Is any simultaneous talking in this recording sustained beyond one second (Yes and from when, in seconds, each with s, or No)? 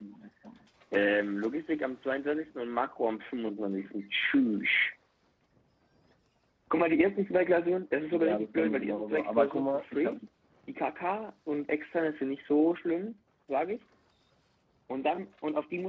Yes, from 8.1 s